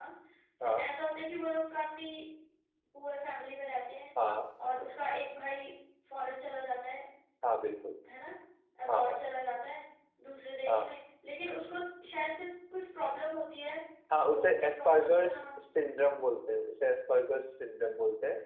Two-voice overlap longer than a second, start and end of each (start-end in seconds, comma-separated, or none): 14.2-15.6